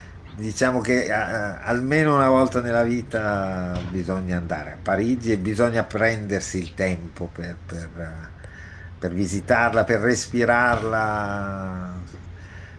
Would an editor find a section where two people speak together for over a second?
No

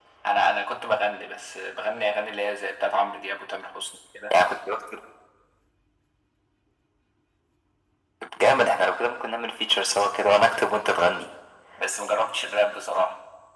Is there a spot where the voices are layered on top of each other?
No

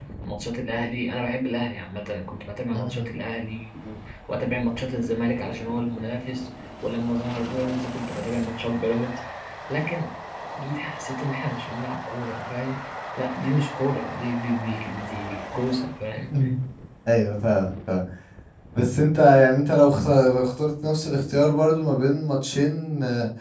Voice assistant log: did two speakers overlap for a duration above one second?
No

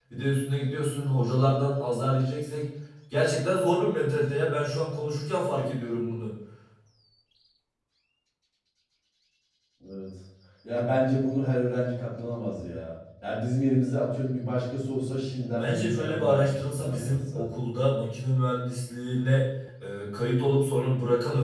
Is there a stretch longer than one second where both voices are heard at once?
Yes, from 15.6 s

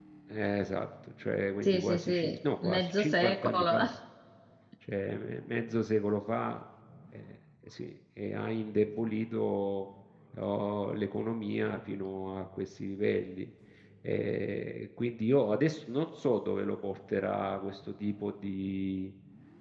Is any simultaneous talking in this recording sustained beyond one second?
Yes, from 1.6 s

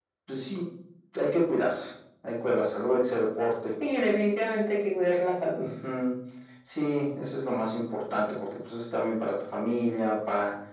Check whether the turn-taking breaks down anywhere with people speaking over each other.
No

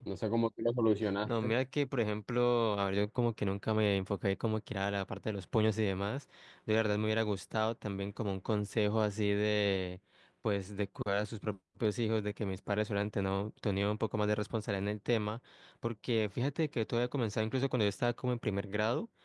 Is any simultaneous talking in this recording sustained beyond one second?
No

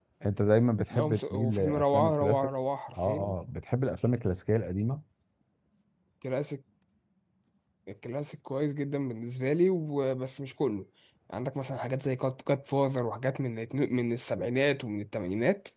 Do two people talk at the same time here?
Yes, from 0.9 s

